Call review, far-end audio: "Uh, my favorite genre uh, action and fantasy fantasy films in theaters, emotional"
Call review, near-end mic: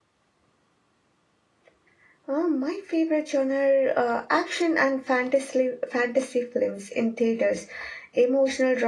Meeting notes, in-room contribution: none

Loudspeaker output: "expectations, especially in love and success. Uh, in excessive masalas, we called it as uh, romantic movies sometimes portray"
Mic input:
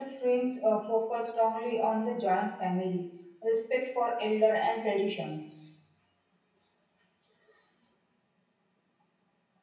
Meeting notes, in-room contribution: present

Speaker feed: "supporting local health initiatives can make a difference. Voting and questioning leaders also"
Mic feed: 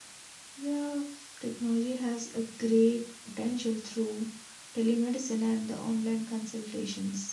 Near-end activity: present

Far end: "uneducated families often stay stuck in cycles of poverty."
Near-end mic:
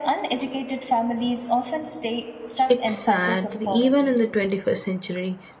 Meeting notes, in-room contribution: present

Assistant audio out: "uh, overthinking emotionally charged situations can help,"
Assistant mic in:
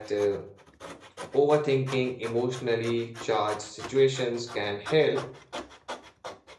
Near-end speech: none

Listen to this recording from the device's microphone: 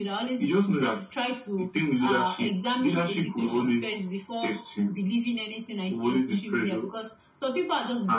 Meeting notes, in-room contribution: none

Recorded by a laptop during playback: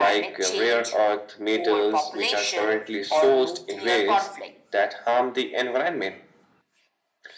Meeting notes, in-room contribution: none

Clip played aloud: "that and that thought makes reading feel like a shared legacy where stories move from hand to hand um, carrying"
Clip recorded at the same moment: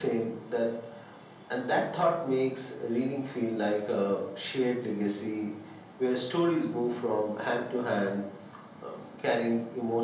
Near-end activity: none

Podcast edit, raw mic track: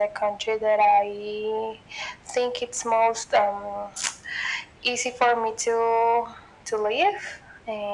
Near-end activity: none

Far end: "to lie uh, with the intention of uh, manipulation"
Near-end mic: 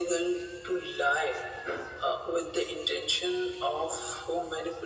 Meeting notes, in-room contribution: none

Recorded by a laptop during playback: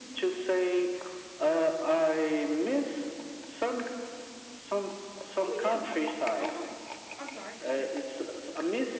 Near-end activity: present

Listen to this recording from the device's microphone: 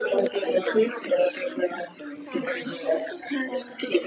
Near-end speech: present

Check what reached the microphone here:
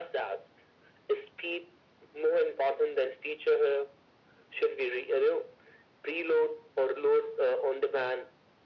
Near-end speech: none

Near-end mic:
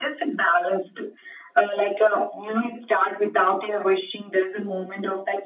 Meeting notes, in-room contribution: none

